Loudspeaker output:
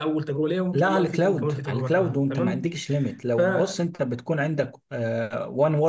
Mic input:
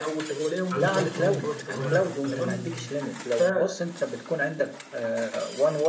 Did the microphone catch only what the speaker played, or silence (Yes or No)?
No